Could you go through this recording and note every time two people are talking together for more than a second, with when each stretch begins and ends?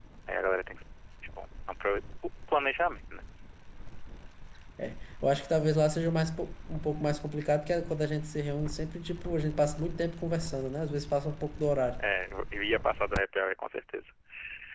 none

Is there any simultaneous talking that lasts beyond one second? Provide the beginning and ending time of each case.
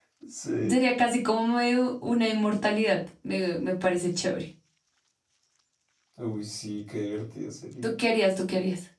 none

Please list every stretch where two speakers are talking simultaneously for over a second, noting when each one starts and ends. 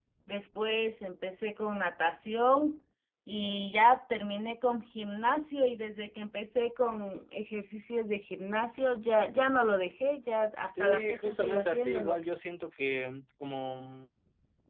10.8-12.2

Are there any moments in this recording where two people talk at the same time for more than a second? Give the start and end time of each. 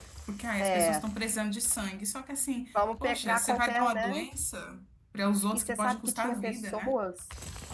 3.0-4.3, 5.5-7.0

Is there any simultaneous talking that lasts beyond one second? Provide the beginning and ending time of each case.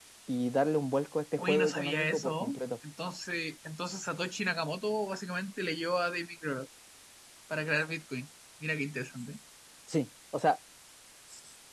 1.4-2.6

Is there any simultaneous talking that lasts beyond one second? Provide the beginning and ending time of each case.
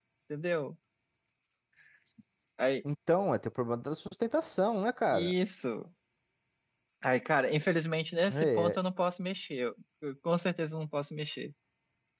none

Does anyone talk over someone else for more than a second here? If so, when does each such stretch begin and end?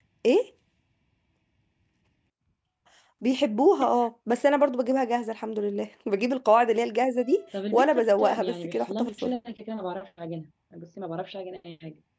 7.7-9.3

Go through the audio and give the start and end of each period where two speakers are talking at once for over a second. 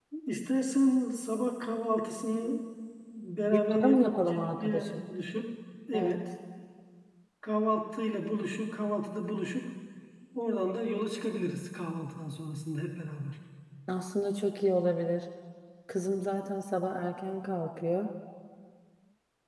3.7-5.0

